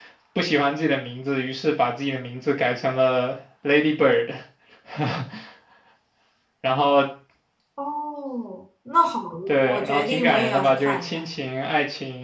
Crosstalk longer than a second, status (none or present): present